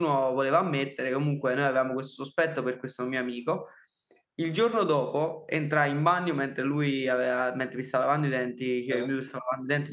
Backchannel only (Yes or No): Yes